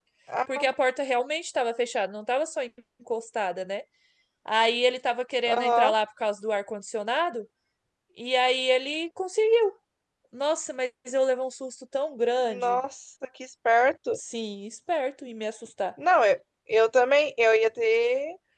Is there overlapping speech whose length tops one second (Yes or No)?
No